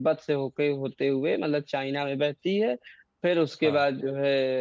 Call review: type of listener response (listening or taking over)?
listening